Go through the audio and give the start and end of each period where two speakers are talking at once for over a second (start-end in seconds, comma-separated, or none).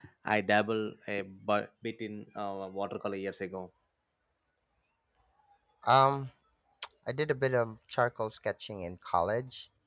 none